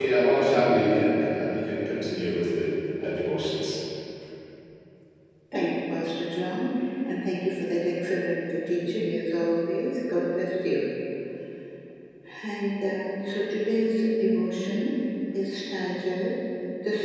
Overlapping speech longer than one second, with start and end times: none

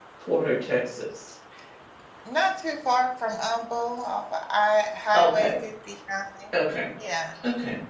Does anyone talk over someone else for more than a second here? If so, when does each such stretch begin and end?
none

